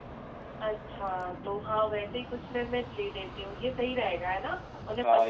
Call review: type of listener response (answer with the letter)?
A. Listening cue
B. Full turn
B